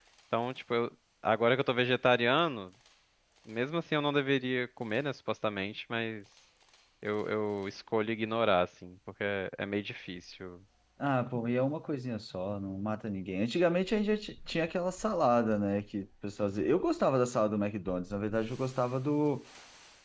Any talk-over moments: No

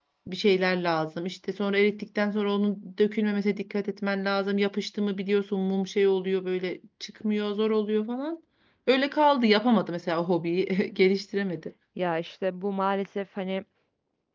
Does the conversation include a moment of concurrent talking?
No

